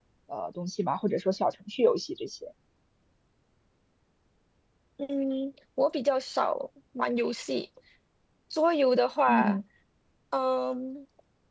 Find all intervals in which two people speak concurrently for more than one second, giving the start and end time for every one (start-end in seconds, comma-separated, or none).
none